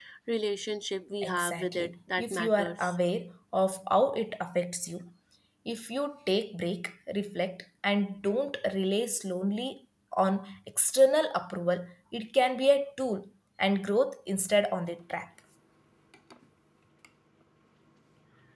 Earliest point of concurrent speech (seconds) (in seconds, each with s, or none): 1.2 s